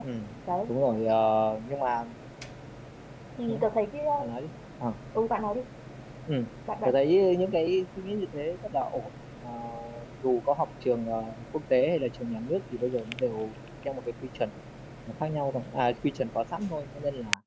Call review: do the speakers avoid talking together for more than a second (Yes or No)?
Yes